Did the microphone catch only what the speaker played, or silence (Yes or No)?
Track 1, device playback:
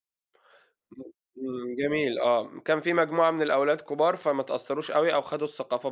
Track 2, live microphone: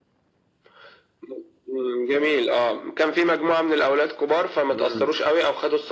No